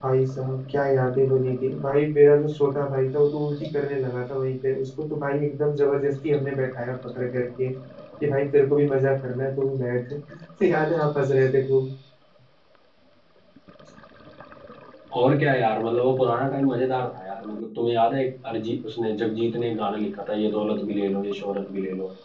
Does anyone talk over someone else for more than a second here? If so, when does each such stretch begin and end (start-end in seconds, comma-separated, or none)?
none